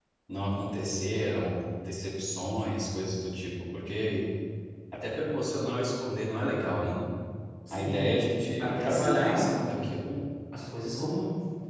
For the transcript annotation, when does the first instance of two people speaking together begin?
8 s

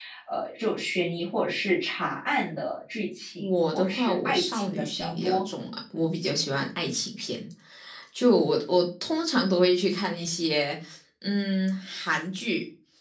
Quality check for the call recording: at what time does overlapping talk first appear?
3 s

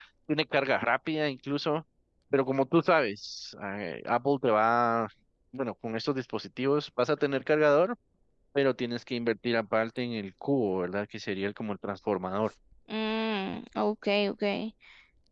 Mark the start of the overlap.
none

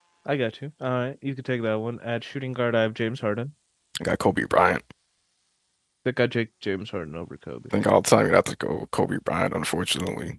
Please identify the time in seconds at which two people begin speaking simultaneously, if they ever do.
none

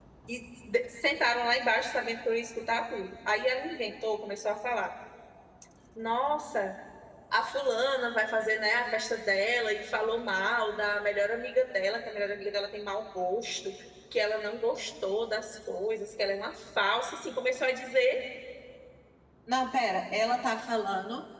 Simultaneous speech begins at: none

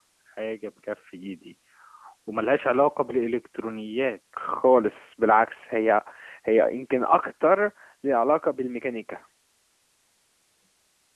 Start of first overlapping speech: none

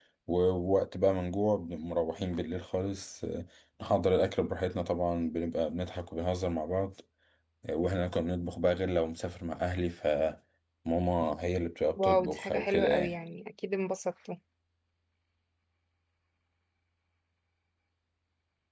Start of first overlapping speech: 12 s

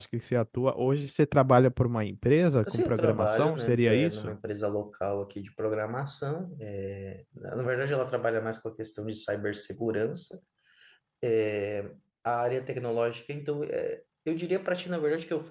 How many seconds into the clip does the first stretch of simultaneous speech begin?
3 s

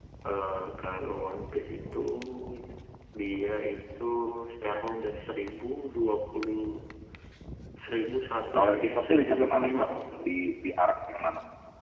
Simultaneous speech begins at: 9 s

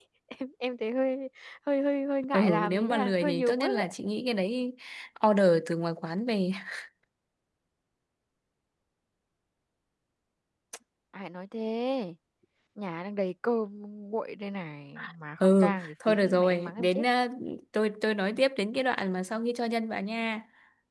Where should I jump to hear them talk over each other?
2 s

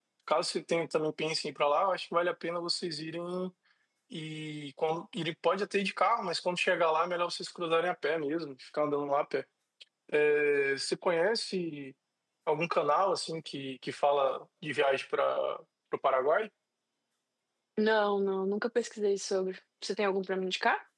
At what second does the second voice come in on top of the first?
none

